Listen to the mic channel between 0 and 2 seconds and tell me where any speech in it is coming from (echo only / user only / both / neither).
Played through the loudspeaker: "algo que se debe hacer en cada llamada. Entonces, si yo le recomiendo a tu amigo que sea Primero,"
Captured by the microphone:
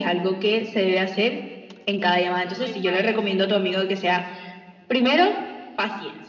echo only